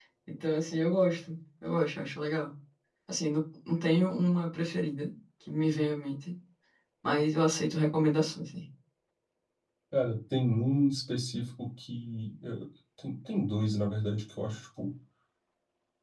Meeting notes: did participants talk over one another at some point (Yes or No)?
No